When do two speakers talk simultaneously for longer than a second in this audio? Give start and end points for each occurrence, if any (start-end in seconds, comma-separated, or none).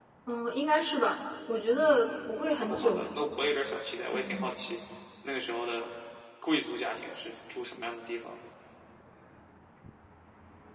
1.8-3.2